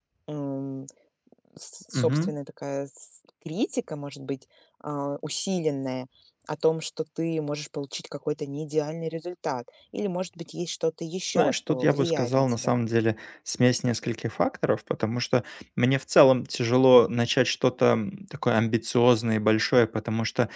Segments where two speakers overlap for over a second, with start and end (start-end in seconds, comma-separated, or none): 11.3-12.7